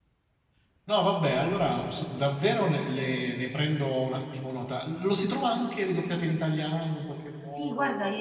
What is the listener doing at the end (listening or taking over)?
taking over